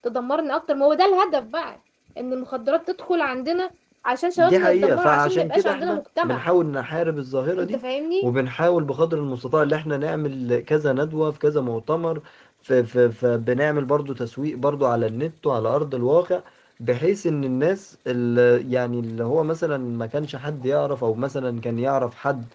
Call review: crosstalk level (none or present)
present